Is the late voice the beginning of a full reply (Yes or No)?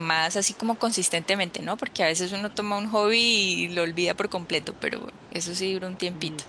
Yes